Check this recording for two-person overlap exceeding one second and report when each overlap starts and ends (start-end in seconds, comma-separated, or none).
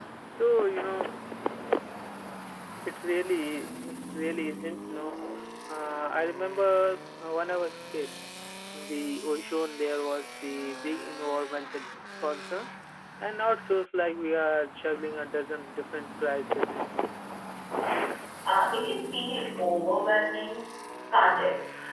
none